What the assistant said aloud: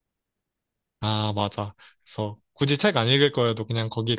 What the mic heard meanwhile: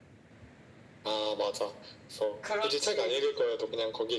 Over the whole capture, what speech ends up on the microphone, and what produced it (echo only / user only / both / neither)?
both